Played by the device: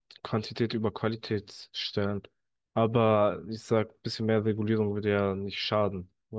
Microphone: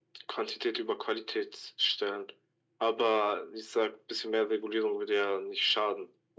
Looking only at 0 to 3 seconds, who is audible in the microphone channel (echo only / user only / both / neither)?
echo only